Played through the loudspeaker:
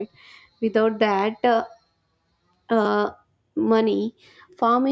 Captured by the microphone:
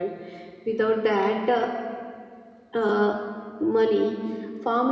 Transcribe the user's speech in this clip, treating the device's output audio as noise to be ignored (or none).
none